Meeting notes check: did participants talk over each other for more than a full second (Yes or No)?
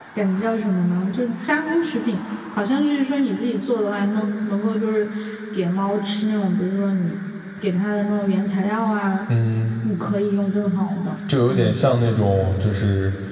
No